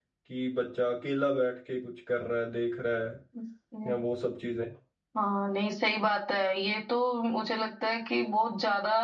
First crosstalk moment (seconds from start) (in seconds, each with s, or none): none